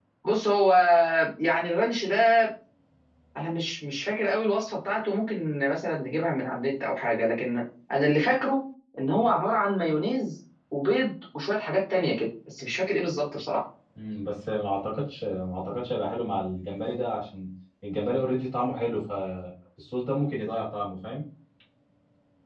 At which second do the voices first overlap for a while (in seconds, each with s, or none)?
none